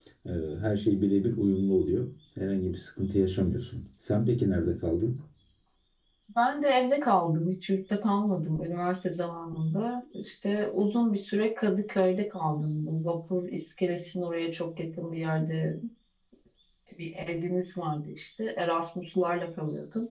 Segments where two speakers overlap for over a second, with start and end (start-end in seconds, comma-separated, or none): none